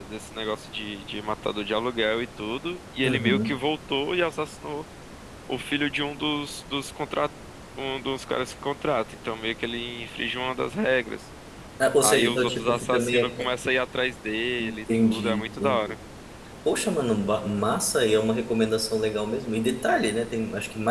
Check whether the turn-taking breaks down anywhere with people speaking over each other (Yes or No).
Yes